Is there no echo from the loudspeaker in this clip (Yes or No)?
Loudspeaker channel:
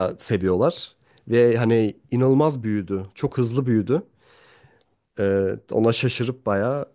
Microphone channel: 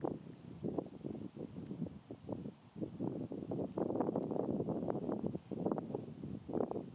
Yes